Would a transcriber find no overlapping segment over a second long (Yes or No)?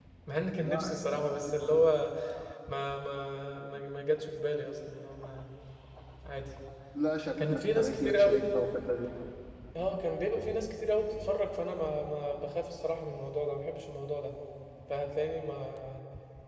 No